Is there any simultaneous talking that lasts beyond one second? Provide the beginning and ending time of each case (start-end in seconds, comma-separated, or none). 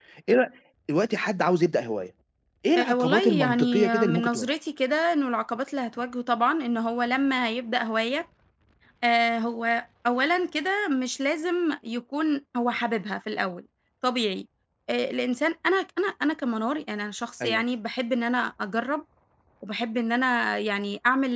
2.8-4.5